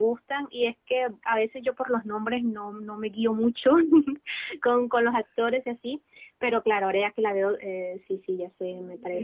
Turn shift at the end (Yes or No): Yes